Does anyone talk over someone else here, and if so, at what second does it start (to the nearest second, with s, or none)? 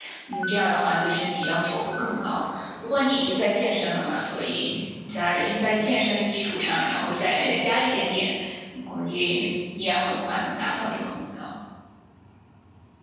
none